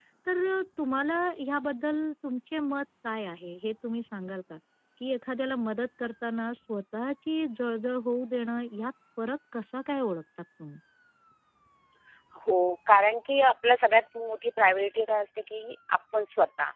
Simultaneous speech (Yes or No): No